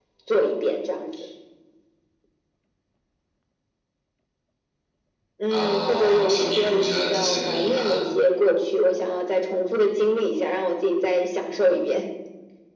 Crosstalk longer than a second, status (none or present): present